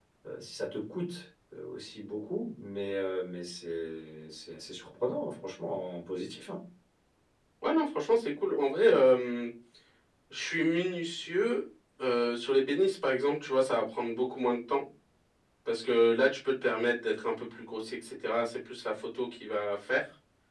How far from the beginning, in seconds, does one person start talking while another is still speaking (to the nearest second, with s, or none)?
none